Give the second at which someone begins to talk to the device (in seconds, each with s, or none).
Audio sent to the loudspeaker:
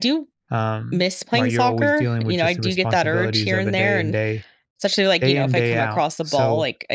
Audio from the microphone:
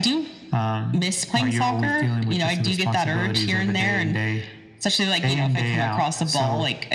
none